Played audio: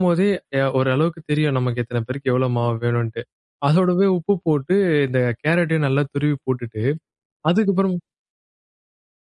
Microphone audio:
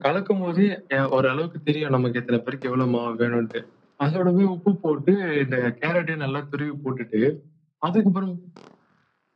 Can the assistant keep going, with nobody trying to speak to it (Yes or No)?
Yes